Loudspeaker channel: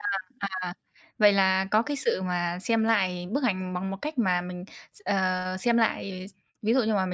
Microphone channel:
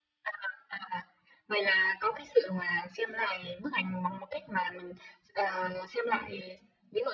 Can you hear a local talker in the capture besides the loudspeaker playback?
No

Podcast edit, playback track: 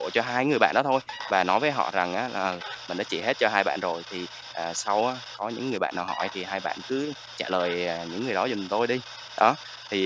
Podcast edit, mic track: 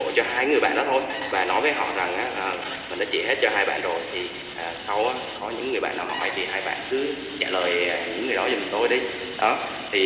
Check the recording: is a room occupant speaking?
No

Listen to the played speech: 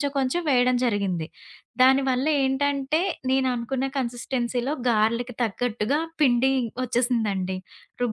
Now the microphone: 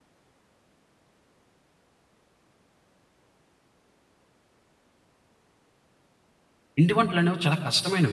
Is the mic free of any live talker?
No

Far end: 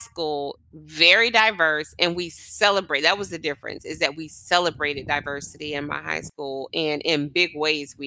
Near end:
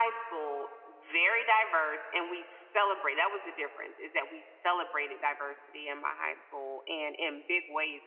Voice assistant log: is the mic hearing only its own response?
Yes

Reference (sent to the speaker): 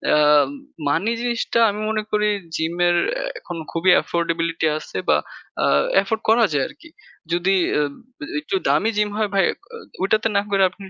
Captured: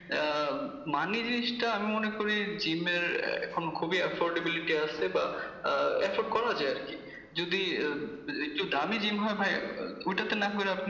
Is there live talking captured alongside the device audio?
No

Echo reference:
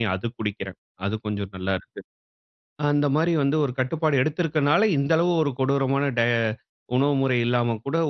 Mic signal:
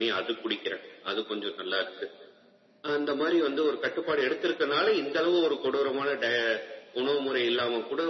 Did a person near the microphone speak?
No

